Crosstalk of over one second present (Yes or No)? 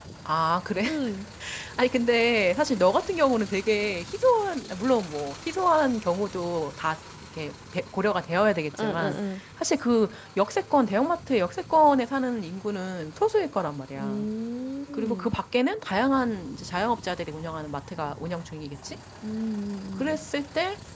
No